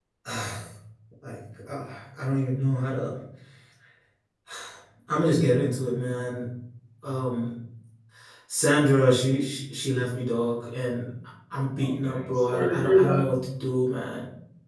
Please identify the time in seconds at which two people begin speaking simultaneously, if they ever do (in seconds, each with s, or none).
11.8 s